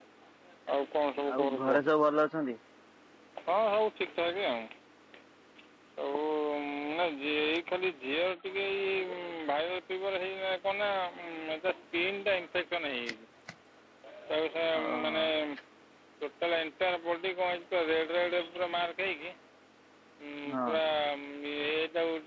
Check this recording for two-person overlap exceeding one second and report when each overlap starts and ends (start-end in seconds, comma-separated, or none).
none